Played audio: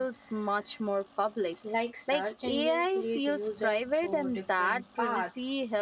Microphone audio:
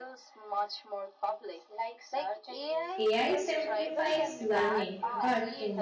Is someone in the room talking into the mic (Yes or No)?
Yes